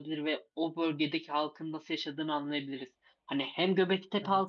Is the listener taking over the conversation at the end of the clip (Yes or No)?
No